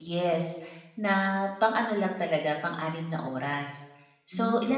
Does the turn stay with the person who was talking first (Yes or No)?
Yes